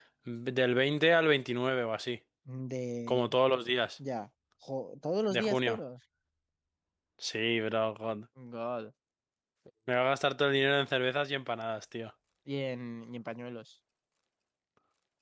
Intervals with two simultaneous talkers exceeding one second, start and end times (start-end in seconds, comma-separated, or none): none